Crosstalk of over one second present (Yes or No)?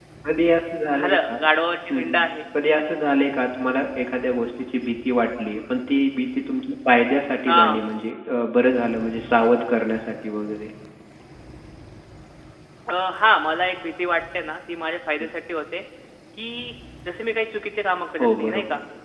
No